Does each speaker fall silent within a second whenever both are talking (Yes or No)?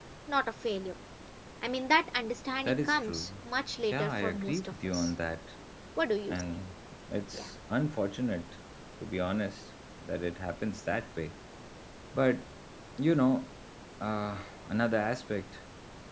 No